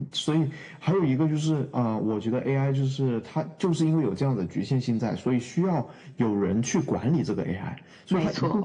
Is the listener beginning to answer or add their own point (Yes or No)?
No